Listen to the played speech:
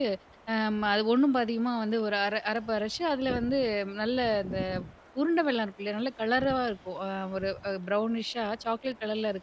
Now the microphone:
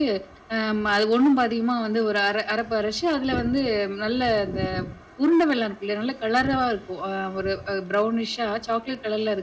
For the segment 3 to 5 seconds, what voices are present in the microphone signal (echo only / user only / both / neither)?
echo only